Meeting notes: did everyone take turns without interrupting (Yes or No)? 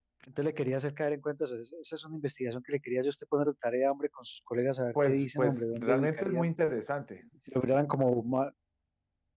No